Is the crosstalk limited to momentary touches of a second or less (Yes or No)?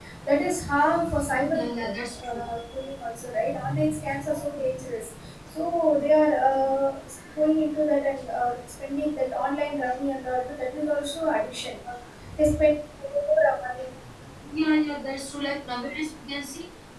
Yes